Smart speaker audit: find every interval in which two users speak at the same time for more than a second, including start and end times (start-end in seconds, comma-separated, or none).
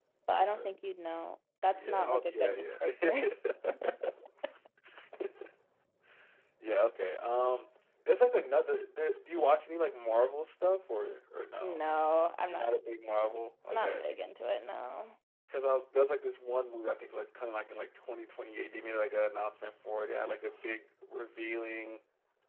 1.7-3.2